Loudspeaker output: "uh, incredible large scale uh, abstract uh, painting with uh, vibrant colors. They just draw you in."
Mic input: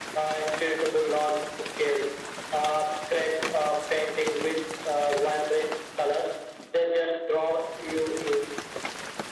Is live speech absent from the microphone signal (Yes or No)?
Yes